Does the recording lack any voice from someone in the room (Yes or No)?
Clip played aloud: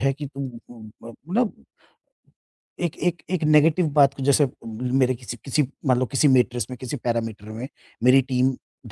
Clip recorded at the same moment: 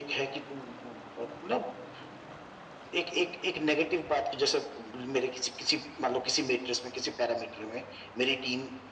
Yes